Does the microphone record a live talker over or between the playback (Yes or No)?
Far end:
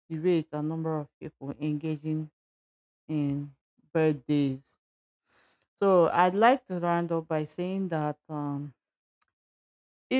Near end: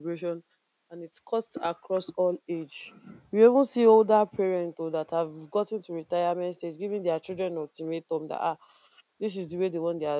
Yes